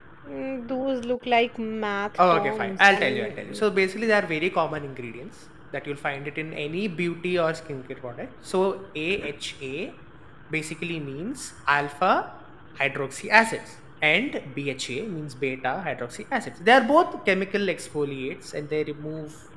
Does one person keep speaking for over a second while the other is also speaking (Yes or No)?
Yes